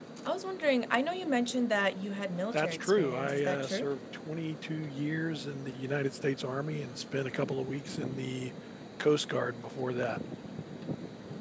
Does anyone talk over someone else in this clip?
Yes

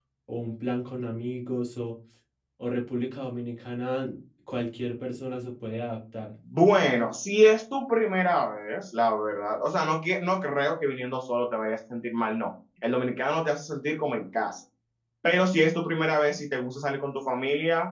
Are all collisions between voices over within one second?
Yes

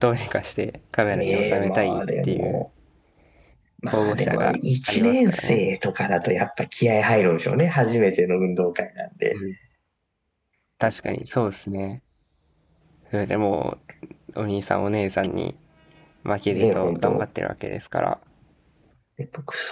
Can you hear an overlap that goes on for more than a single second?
Yes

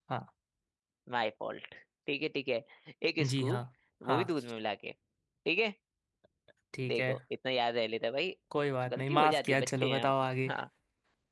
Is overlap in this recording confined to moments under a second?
No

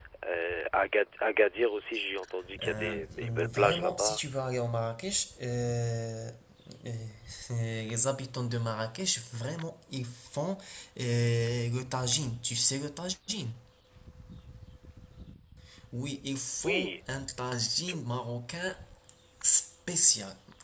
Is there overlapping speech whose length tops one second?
Yes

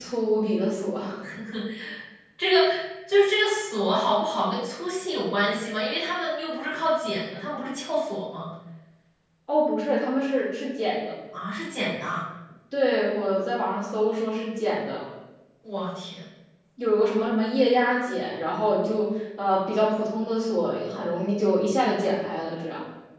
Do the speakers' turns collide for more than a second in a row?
No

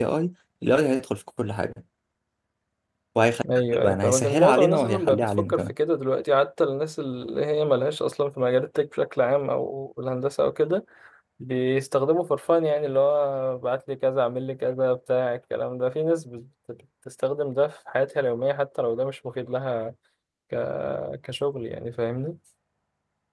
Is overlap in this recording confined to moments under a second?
No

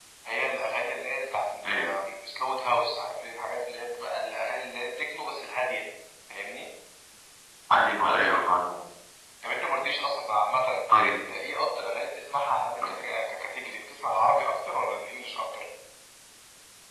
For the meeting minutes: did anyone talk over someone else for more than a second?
No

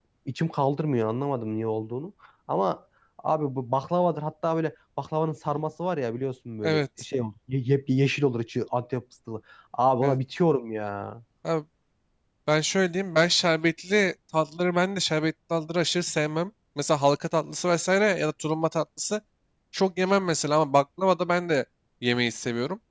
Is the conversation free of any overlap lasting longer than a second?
Yes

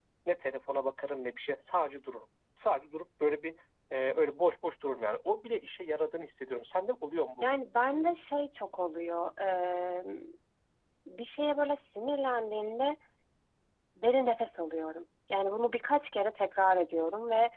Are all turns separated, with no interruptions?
Yes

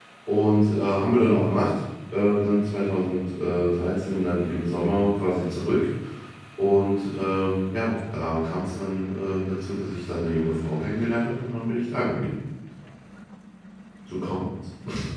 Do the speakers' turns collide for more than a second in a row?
No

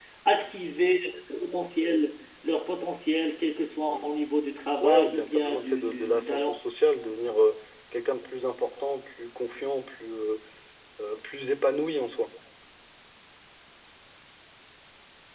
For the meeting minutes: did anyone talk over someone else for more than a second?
Yes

